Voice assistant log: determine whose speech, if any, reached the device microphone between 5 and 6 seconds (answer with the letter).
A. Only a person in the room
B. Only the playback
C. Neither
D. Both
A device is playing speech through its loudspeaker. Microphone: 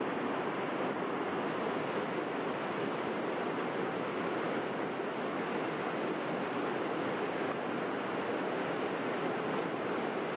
C